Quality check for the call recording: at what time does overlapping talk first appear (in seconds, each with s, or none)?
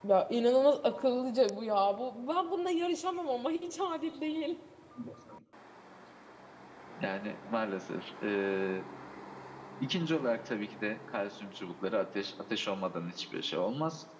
none